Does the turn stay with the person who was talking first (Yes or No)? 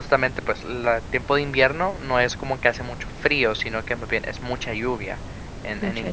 Yes